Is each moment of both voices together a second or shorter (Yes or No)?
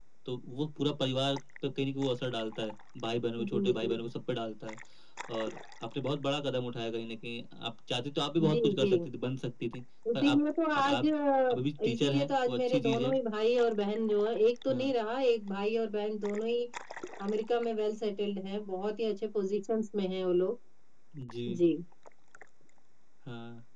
No